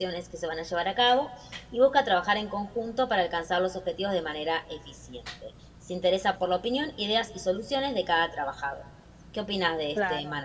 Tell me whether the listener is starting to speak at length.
Yes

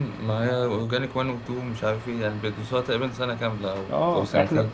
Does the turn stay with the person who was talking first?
No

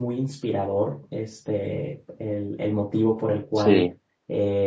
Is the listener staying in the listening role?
Yes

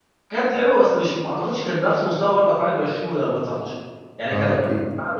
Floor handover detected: No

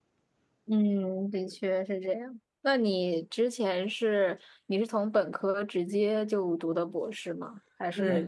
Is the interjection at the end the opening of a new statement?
No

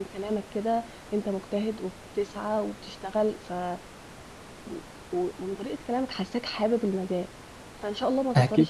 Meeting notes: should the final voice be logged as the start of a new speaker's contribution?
No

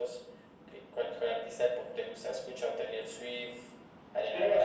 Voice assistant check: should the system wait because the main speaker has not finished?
No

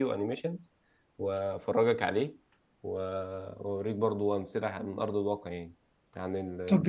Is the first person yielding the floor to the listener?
Yes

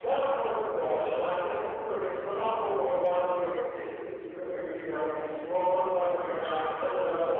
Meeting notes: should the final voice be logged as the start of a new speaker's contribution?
No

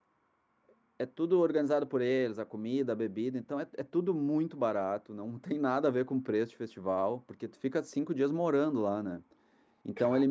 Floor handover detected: No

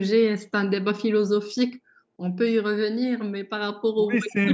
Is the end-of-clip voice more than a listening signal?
Yes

